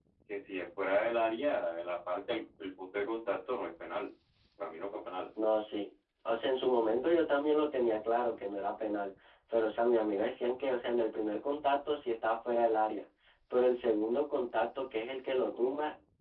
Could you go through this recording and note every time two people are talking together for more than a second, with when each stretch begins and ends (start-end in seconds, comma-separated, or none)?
none